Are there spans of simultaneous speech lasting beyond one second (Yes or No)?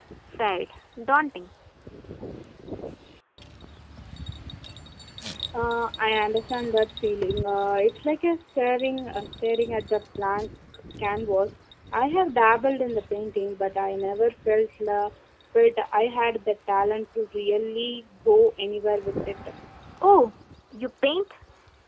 No